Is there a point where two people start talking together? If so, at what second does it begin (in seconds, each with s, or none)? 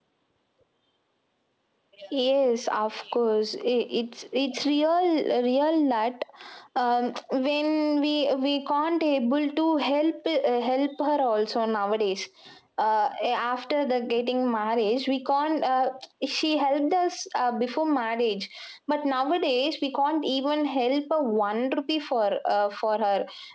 none